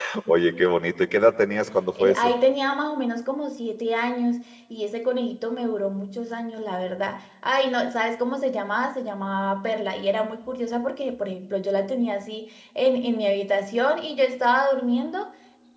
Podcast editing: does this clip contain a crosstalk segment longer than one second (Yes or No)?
No